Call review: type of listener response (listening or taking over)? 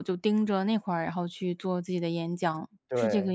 taking over